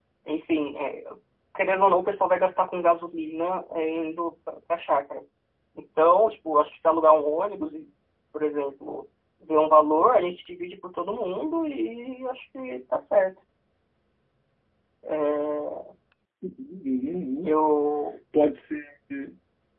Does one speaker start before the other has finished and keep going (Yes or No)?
No